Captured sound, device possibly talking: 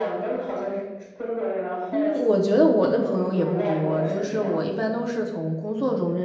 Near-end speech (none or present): present